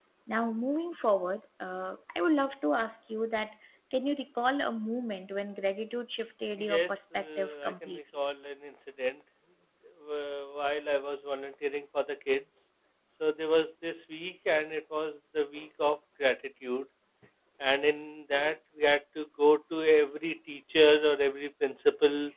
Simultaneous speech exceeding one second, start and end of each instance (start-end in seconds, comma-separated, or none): 6.6-8.0